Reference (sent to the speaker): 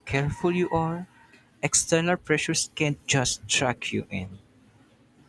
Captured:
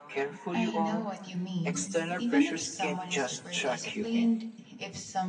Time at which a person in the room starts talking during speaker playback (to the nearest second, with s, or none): 1 s